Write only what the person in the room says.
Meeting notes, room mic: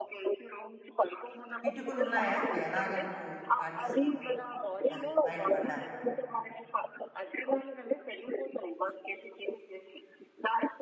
కిటుకులున్నాయా? ఎలాగ నువ్వు పాటిస్తావు? అది బయట పడడానికి?

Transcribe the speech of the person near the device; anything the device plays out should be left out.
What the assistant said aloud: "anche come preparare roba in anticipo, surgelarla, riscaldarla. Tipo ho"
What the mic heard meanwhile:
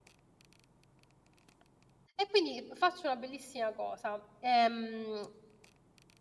E quindi faccio una bellissima cosa: ehm,

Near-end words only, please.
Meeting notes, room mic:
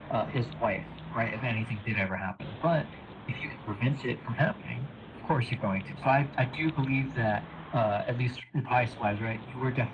none

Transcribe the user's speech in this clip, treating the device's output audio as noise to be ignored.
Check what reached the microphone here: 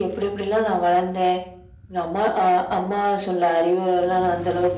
none

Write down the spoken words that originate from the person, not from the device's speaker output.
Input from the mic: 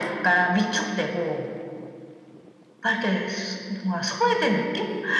none

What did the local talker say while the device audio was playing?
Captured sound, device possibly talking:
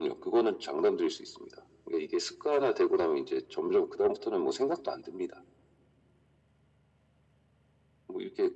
none

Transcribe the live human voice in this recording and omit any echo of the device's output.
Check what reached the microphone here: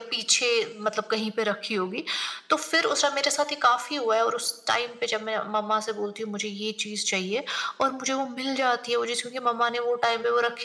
none

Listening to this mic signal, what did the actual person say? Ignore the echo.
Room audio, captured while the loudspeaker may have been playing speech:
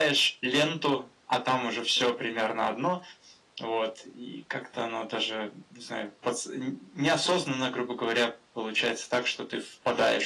none

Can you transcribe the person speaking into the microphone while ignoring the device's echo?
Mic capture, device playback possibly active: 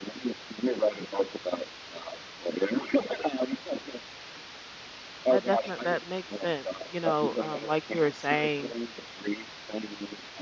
That definitely that makes sense. You know, um like you were saying,

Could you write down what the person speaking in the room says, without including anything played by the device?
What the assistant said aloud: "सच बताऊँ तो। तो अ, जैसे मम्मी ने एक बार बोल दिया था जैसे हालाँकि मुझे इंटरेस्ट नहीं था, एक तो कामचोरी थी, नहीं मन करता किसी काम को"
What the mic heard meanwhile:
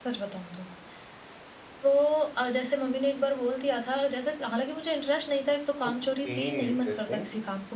ओके, इंटरेस्टिंग।

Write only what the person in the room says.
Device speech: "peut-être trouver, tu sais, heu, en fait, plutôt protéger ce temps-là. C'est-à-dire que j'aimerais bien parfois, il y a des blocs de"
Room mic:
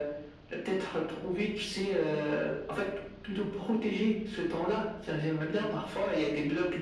none

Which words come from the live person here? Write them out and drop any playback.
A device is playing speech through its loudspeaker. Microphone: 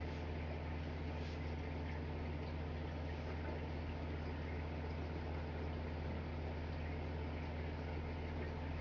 none

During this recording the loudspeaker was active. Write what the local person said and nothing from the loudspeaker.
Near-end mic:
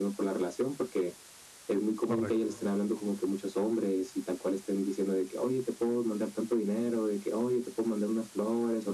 correcto.

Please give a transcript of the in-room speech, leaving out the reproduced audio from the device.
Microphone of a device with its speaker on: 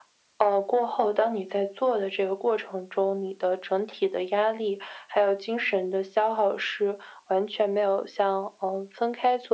none

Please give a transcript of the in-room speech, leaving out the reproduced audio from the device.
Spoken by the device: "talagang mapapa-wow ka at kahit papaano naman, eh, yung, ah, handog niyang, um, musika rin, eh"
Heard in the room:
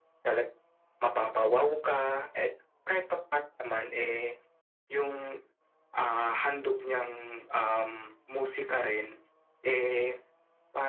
none

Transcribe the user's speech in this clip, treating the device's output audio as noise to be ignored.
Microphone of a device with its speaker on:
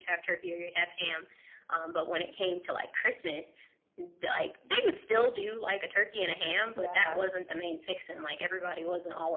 Yeah.

